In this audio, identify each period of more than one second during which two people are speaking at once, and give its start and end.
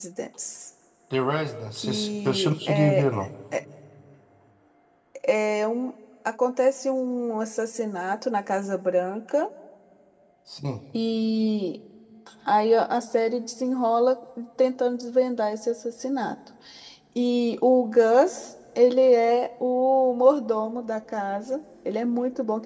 1.8-3.1

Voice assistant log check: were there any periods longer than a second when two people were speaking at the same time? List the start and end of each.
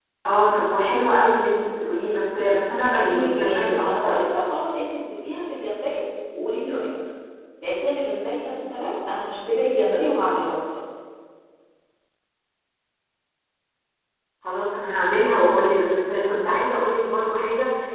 3.0-4.2

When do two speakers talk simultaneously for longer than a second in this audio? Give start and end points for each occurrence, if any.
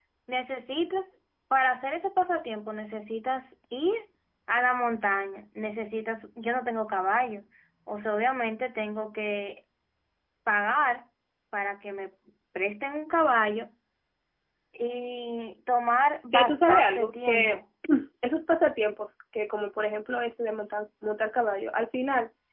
16.3-17.6

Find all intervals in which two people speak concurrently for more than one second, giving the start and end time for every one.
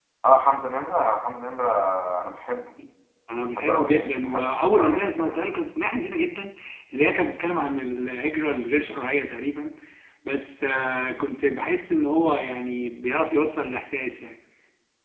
3.5-5.4

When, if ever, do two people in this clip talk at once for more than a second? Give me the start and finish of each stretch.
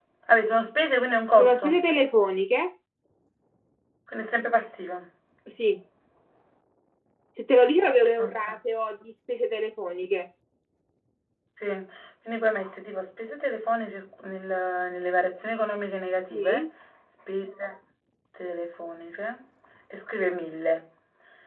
none

